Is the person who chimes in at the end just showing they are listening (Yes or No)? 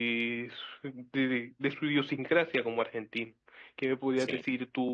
Yes